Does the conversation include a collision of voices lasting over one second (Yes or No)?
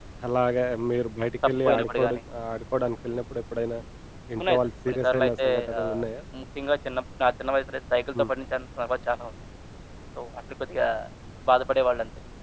Yes